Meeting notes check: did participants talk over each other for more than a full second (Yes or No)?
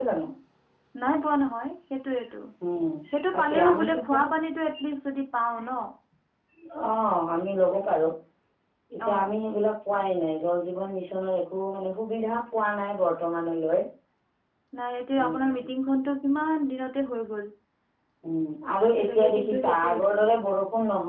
Yes